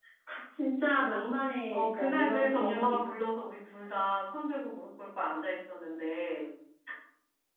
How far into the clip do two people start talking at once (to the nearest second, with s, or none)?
2 s